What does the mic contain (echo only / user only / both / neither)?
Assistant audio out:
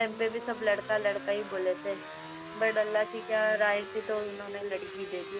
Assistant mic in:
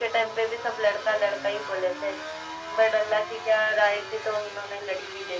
echo only